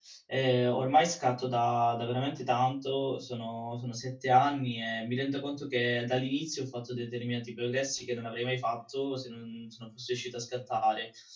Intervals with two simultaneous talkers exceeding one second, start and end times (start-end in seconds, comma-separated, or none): none